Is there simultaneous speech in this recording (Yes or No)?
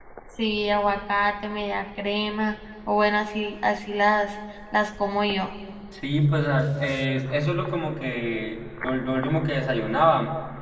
No